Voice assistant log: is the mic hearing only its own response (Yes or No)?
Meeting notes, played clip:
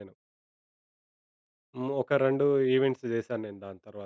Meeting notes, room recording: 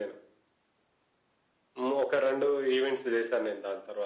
Yes